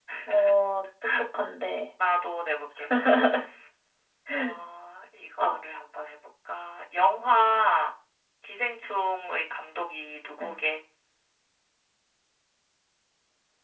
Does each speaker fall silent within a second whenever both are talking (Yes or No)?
Yes